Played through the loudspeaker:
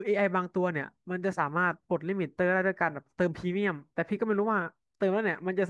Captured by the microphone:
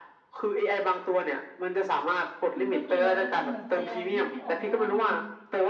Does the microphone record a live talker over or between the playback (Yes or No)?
Yes